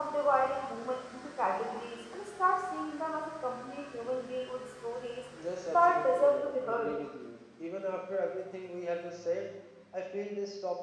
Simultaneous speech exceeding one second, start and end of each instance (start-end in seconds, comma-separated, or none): 5.7-7.0